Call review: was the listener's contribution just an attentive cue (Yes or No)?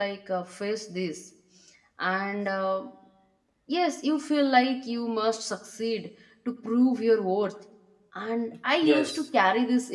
Yes